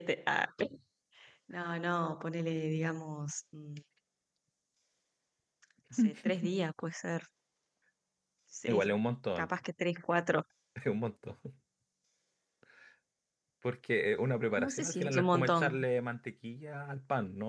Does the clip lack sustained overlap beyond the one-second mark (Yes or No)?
No